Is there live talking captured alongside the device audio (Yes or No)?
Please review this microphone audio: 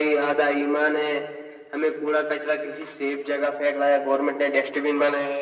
No